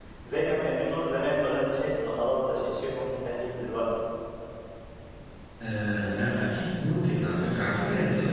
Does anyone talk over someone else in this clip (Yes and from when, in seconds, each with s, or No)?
No